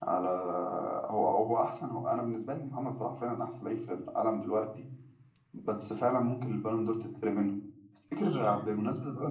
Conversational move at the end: listening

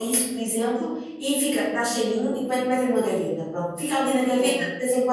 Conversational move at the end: listening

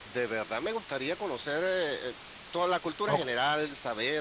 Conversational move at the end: listening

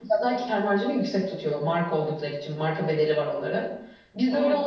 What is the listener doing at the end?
listening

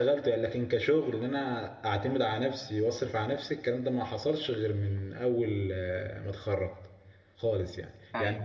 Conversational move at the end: taking over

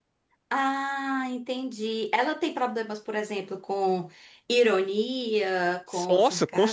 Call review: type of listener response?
taking over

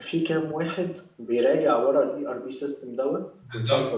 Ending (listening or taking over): taking over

